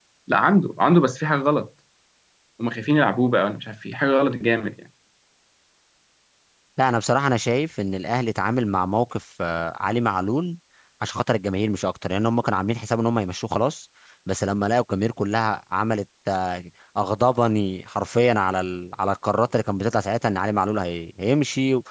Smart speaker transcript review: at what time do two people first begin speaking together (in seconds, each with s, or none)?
none